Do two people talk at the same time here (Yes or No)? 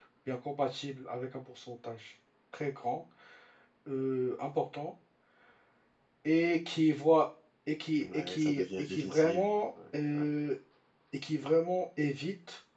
Yes